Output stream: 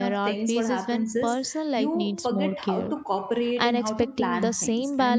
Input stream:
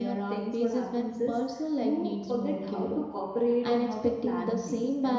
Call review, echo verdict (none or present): present